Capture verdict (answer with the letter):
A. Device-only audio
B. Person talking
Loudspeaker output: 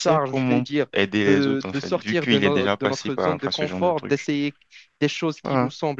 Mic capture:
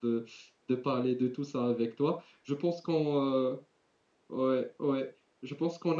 B